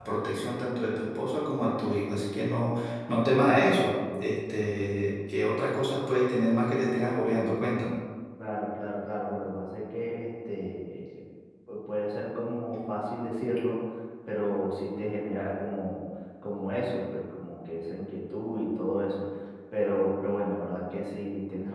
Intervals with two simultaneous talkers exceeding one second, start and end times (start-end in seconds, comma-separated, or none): none